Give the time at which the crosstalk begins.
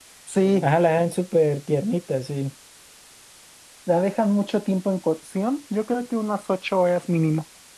none

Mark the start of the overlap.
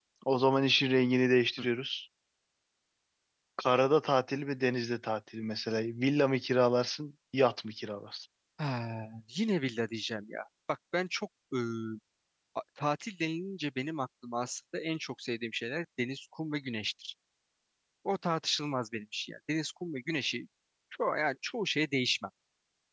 none

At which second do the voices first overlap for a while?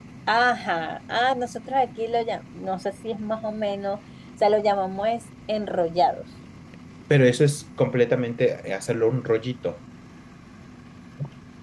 none

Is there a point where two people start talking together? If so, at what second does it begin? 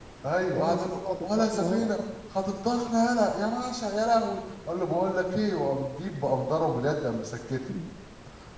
1 s

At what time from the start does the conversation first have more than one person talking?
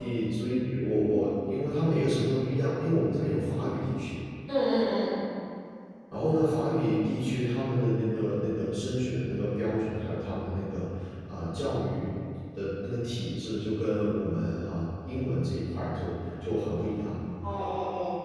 none

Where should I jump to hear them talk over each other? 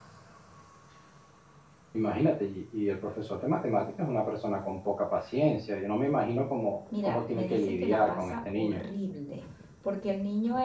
7 s

